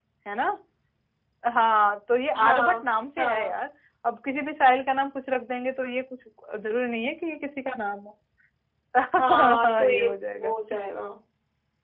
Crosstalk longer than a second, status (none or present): present